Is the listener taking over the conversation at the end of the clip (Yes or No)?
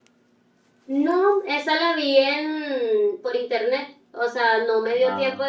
No